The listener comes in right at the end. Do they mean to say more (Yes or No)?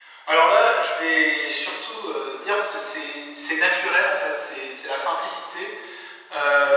No